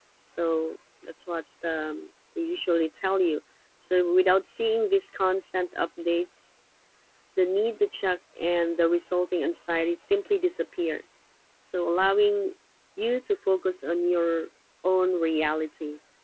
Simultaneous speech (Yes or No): No